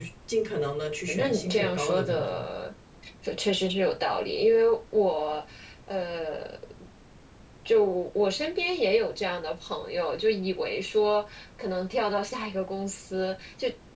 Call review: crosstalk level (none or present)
present